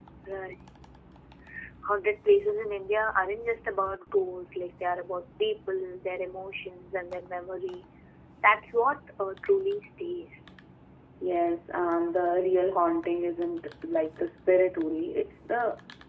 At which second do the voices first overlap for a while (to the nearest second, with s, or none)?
none